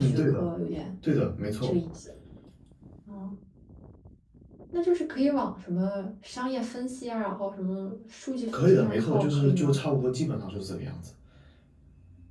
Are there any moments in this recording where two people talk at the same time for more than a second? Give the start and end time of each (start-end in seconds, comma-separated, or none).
8.5-9.8